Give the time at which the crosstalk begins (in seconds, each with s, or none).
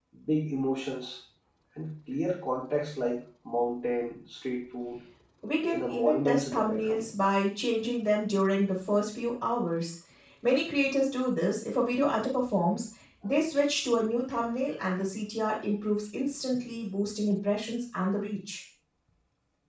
5.7 s